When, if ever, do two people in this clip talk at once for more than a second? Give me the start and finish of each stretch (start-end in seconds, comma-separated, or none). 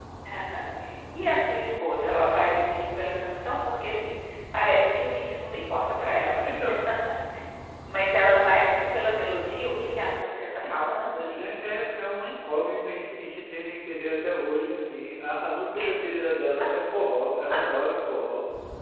none